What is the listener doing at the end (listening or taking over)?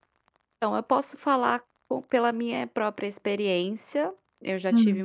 listening